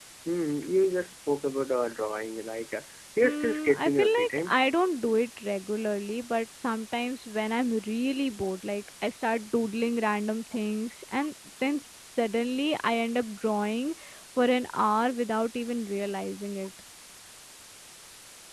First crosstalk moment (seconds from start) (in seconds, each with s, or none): 3.2 s